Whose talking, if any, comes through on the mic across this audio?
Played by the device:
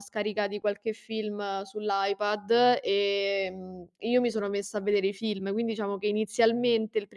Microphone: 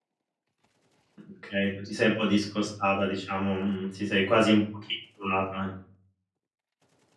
user only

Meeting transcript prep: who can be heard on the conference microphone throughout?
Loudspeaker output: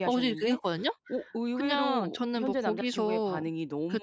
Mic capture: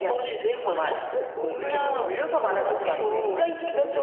both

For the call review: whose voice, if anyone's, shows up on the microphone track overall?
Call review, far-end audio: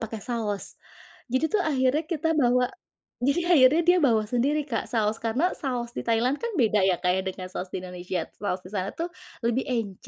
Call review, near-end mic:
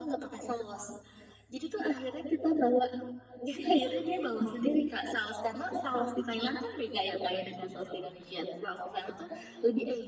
echo only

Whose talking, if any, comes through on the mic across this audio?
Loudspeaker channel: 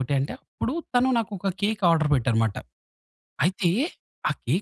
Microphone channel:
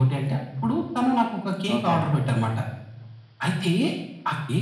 both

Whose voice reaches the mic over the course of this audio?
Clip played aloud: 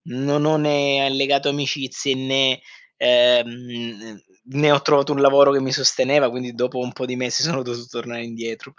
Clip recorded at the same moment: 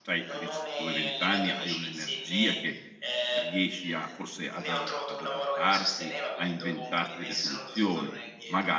both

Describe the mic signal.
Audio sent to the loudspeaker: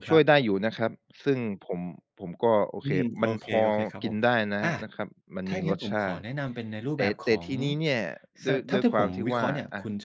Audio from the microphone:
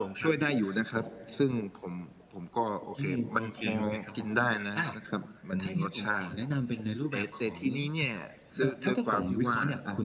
echo only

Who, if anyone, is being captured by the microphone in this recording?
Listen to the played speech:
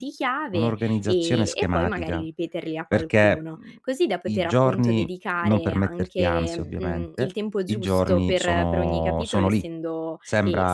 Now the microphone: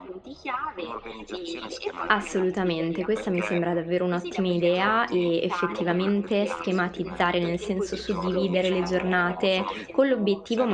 both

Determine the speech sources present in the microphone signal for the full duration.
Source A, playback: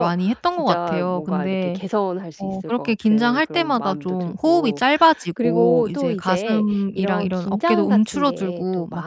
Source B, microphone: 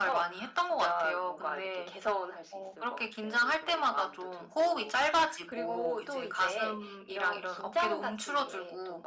echo only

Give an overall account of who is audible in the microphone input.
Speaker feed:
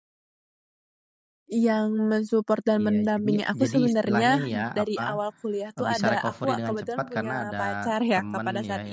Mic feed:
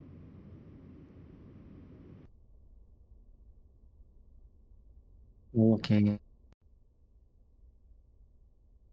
user only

